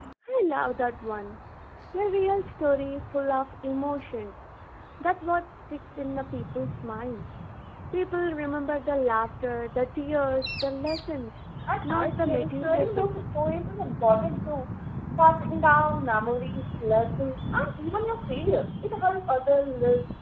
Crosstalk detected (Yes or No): Yes